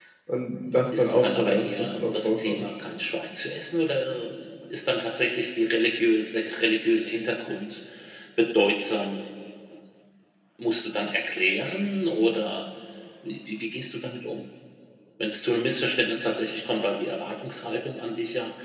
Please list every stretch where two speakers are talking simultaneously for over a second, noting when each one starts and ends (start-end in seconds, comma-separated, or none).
0.9-2.6